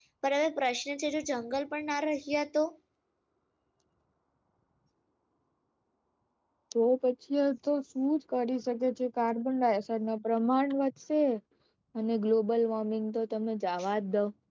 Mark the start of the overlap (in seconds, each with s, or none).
none